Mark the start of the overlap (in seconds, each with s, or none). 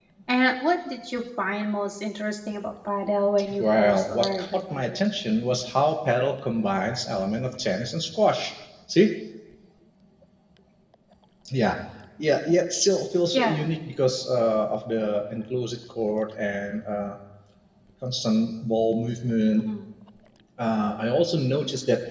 3.6 s